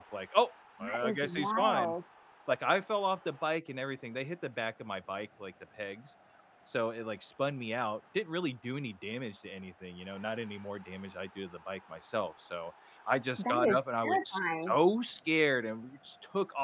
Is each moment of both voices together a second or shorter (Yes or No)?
No